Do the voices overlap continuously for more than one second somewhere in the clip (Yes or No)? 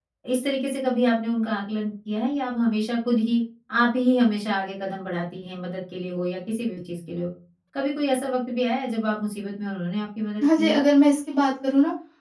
No